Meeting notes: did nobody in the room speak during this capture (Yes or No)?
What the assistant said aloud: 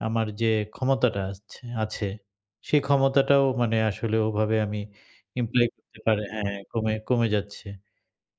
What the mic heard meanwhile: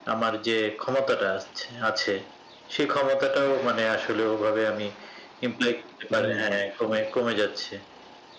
No